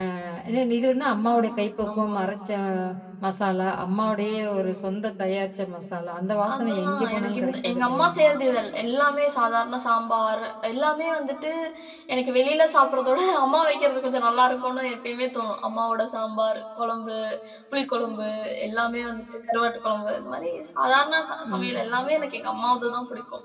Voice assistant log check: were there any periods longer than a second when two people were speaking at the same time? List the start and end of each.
6.5-8.1

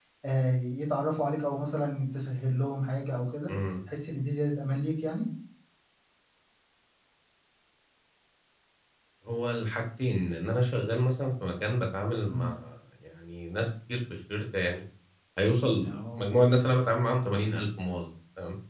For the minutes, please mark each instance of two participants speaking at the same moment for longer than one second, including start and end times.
none

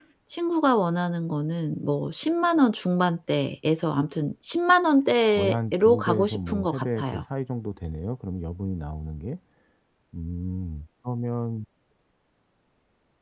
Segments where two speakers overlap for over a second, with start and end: 5.3-7.2

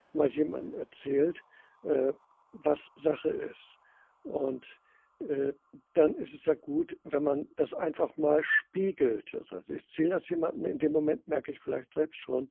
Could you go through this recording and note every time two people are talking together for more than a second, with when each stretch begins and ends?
none

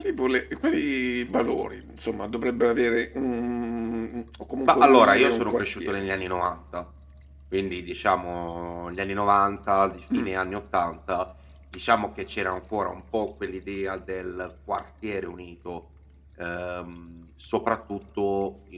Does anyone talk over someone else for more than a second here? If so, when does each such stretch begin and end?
4.7-6.0

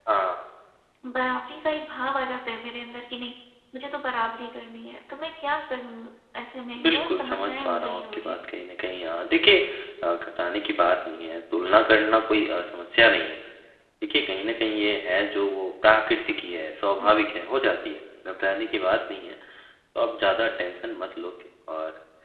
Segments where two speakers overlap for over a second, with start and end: 6.8-8.4

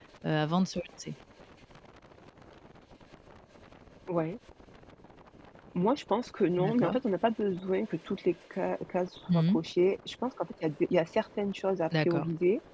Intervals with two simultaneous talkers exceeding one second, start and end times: none

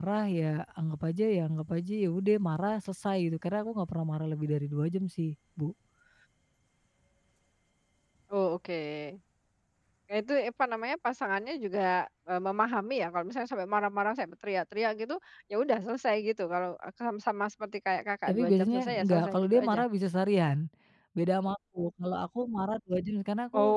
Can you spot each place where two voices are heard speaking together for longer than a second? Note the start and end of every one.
18.3-19.8

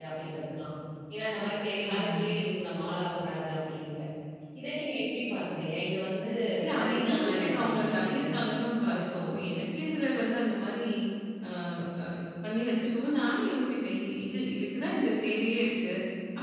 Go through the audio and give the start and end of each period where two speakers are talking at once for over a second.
6.8-8.2

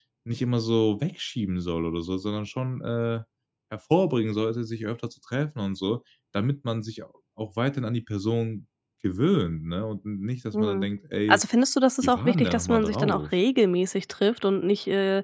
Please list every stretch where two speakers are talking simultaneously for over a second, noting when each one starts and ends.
12.0-13.2

